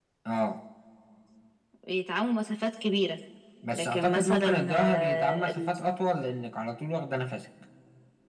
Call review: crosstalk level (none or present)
present